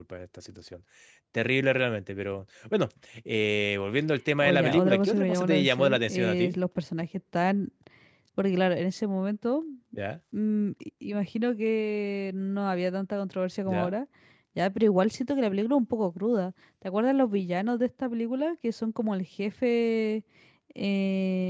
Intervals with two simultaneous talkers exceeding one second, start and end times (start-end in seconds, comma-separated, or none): 4.4-6.5